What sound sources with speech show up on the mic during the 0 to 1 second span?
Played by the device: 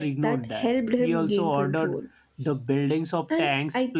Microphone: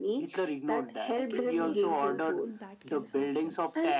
echo only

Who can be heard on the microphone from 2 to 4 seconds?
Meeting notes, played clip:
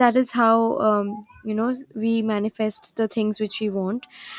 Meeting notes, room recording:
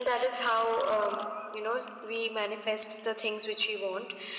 echo only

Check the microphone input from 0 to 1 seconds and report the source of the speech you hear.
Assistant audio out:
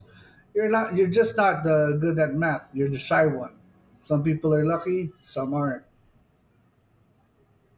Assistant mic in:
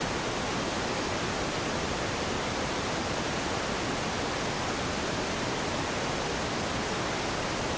neither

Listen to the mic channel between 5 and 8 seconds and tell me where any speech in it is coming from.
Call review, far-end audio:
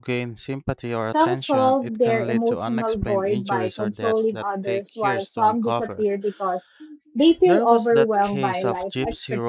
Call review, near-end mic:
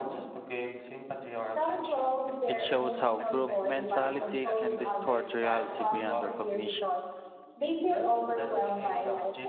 both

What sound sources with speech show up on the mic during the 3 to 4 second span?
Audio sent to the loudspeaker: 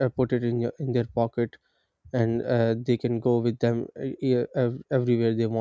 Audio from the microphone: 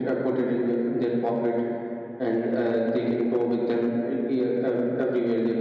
echo only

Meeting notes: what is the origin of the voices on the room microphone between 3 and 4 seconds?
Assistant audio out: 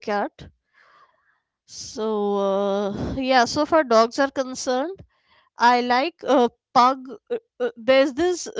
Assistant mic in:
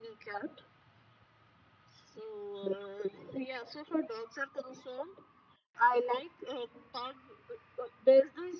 echo only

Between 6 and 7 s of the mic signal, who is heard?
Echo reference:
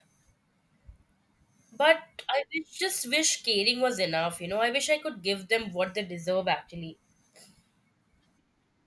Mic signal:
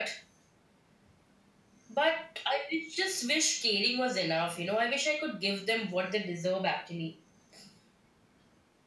echo only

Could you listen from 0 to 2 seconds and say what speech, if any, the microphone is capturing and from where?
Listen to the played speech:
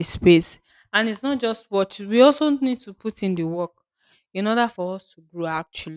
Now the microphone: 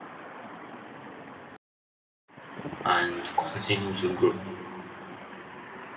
neither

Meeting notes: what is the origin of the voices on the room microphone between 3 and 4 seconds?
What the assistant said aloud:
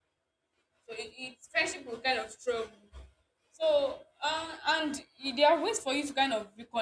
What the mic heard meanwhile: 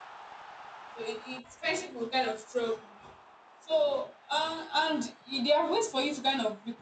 echo only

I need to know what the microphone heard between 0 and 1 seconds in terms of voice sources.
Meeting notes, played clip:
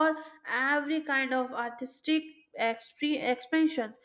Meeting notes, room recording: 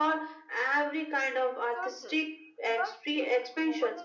echo only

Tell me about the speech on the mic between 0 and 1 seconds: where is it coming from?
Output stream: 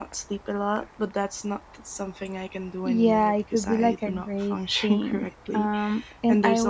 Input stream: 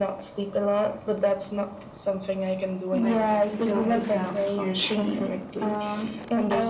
echo only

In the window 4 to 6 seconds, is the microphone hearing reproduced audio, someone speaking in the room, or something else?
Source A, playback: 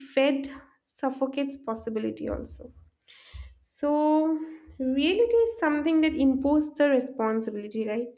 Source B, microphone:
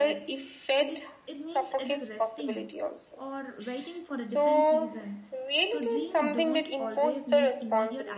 both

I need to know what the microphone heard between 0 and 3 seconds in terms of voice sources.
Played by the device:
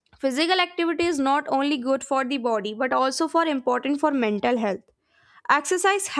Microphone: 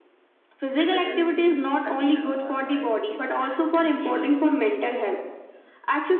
both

